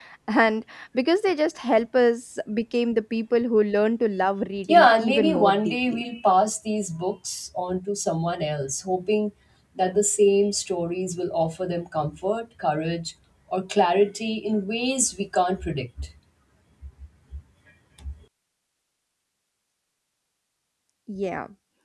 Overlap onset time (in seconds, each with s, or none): 4.7 s